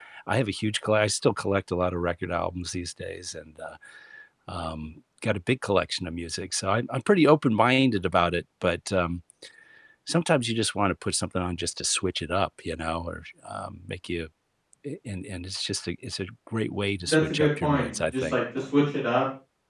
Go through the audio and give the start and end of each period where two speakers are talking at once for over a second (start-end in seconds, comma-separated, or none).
17.0-18.3